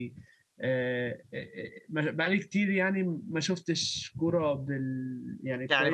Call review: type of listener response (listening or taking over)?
taking over